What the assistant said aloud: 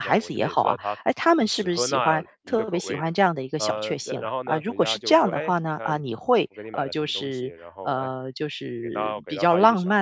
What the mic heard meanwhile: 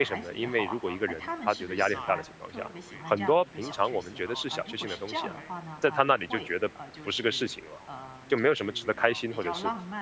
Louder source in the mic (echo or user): user